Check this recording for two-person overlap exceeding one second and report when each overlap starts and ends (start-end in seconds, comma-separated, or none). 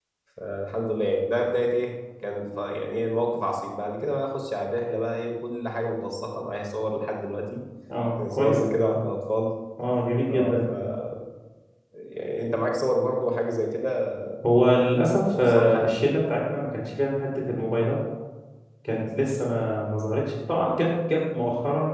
14.7-15.9